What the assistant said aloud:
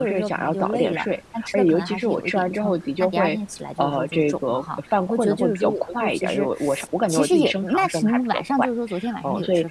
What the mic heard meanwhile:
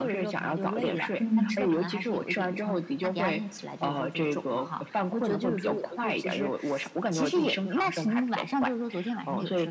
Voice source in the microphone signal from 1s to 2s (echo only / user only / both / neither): both